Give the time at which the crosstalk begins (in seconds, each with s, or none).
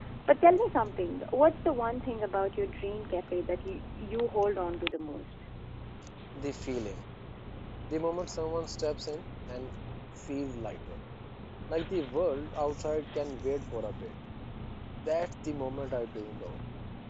none